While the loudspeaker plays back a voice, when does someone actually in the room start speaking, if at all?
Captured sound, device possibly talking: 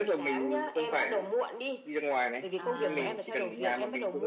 2.6 s

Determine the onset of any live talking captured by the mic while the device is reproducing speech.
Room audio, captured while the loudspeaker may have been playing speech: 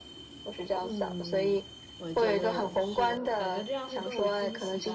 0.8 s

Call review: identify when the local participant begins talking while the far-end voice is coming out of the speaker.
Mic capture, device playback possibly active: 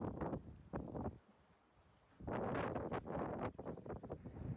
none

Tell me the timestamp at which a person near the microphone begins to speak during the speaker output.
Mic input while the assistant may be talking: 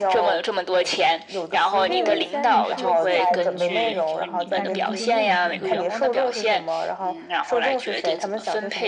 1.8 s

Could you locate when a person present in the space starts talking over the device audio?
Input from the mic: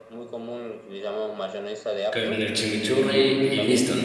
2.1 s

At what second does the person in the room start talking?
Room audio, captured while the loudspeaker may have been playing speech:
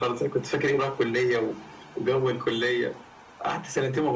none

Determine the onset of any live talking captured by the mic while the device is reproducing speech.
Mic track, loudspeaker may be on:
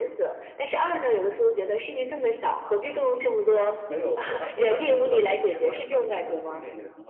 3.9 s

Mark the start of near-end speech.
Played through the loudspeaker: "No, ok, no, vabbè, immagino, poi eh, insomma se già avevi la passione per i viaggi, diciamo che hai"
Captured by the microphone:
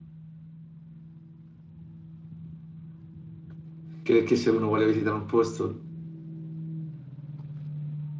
4.0 s

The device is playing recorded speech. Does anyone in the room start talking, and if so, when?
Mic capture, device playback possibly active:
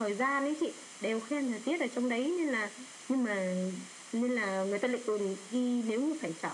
none

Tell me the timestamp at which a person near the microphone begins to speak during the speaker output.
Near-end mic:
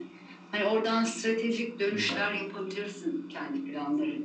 1.9 s

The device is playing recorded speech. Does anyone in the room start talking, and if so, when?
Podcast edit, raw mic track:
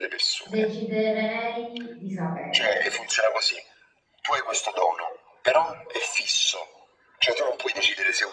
0.4 s

